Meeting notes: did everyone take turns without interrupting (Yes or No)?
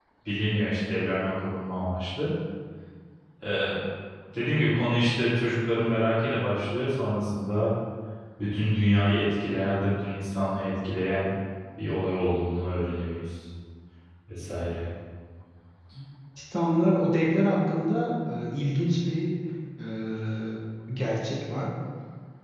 Yes